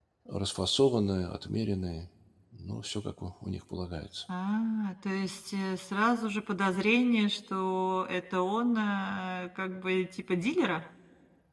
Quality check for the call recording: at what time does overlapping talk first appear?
none

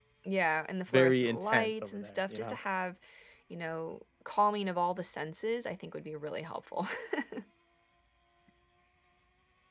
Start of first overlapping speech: 0.9 s

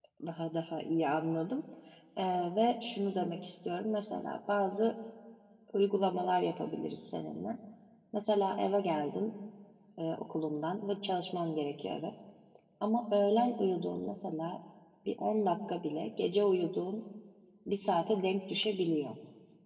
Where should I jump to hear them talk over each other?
none

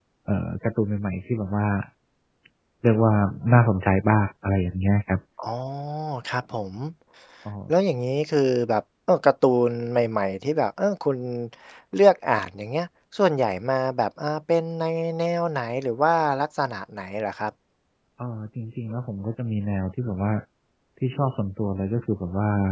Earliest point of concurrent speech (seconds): none

